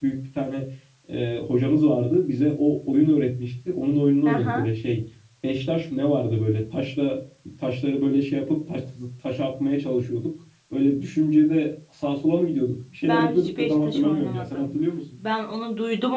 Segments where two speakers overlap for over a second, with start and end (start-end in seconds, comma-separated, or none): 13.1-14.7